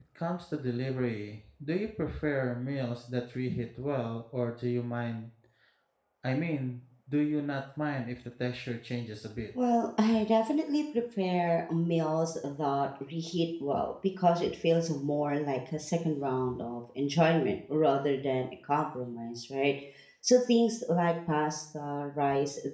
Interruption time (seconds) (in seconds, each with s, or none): none